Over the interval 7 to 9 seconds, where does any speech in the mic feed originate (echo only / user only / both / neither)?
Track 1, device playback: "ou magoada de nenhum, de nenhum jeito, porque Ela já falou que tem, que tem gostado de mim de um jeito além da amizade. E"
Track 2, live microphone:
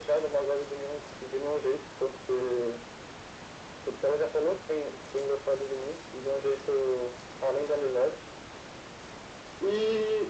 echo only